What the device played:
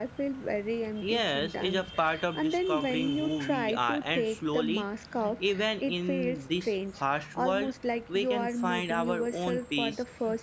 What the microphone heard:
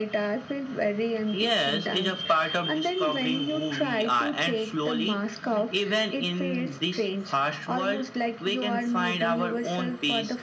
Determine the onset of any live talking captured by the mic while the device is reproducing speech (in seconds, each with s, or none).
none